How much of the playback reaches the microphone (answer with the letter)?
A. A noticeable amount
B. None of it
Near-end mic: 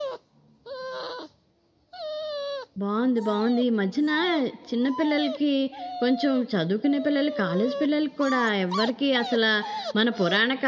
B